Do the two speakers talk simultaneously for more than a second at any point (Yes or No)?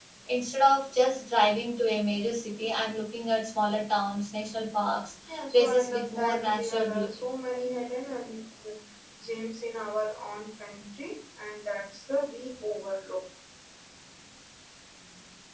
Yes